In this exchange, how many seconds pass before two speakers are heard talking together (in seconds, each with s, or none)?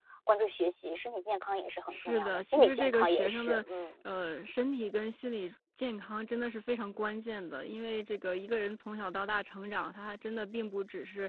1.9 s